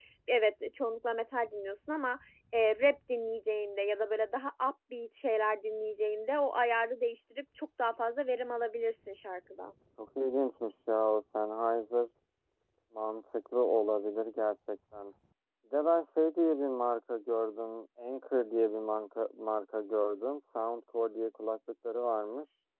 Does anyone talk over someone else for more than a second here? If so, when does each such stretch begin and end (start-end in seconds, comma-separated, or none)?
none